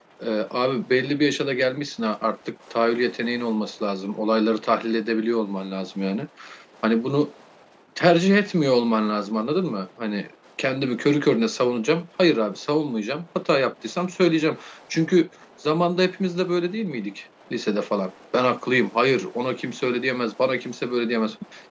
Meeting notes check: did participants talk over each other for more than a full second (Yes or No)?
No